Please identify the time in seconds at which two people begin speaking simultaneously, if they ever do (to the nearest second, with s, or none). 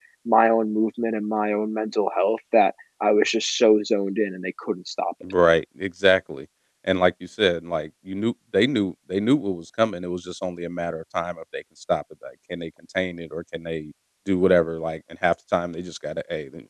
none